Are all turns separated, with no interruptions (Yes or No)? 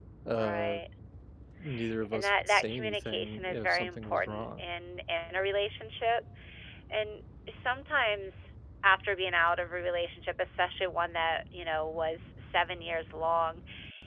No